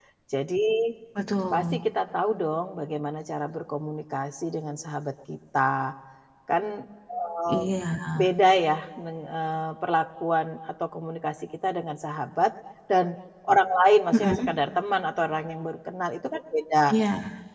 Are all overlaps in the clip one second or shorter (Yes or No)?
Yes